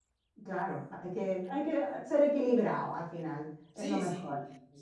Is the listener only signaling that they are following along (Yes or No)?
No